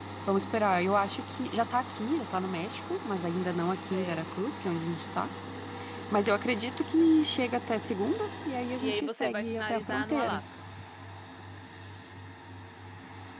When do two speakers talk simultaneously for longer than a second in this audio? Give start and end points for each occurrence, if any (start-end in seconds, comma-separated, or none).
8.8-10.4